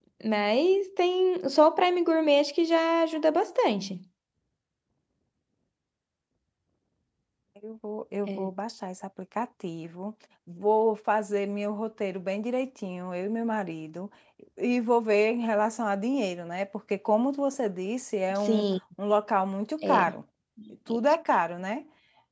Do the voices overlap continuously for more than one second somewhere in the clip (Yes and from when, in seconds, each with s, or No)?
No